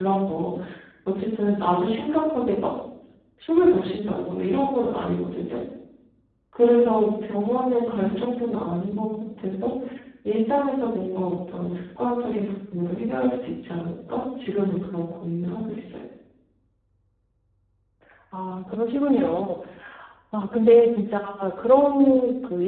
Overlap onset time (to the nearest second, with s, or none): 8 s